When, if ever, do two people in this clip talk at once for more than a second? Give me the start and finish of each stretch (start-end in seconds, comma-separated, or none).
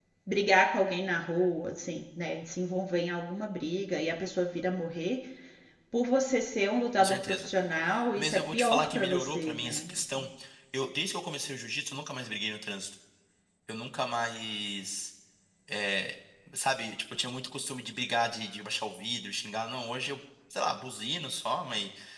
8.2-10.3